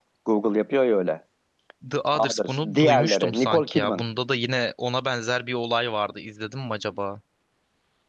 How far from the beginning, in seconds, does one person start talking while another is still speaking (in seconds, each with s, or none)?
2.1 s